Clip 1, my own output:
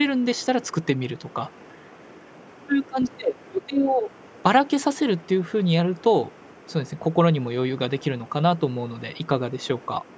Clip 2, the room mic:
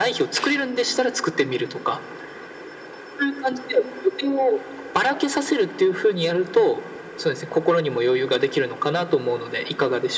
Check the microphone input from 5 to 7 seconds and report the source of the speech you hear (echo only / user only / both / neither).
echo only